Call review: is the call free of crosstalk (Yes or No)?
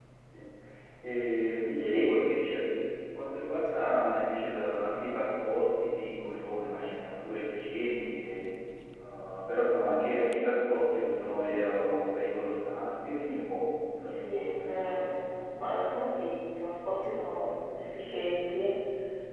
No